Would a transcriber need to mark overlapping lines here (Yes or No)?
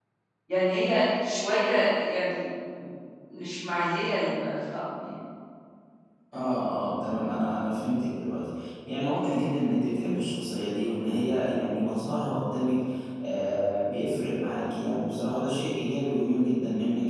No